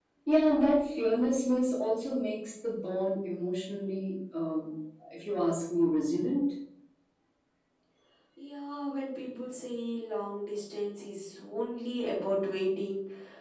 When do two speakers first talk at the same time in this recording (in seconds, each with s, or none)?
none